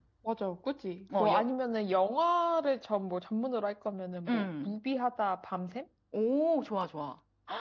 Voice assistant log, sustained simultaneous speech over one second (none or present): none